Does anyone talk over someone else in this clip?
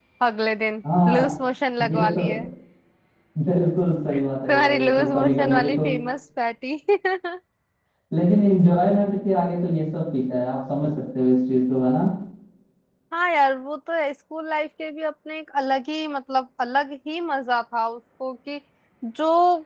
Yes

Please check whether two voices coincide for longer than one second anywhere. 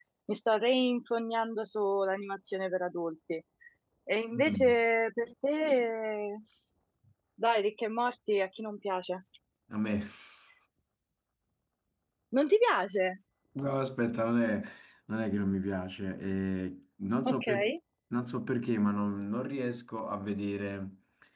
No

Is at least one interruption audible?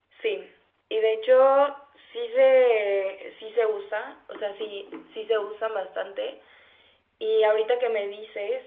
No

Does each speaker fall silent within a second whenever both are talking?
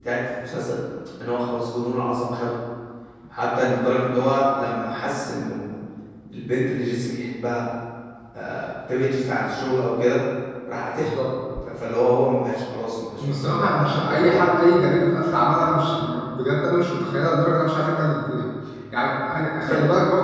No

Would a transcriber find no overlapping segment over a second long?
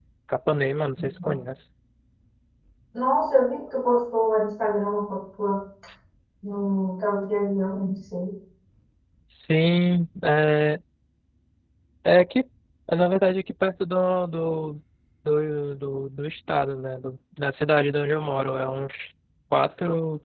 Yes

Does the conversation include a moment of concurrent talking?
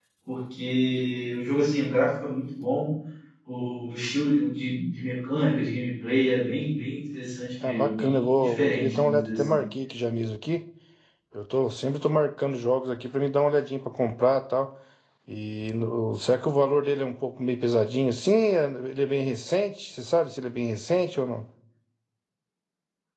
Yes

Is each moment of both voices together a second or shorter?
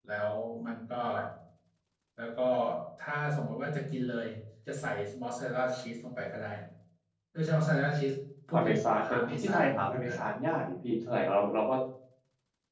No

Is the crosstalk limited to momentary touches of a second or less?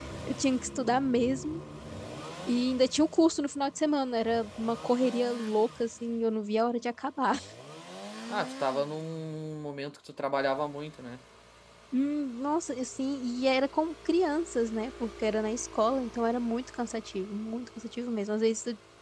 Yes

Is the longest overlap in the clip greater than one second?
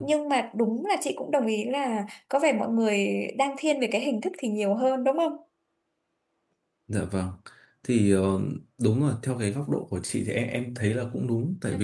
No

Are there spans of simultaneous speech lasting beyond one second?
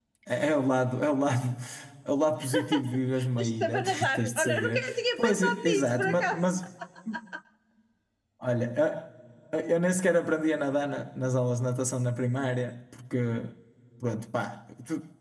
Yes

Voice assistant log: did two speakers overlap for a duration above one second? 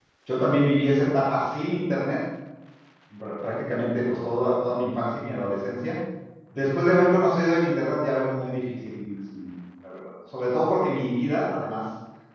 No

